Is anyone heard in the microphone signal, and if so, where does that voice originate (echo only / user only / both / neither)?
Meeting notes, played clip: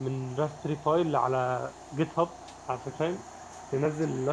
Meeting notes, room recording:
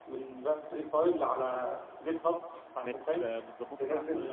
both